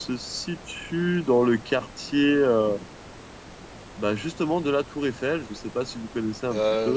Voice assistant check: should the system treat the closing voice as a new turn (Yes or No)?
Yes